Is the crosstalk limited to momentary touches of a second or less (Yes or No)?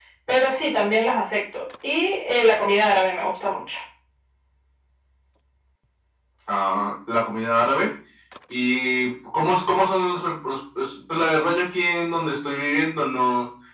Yes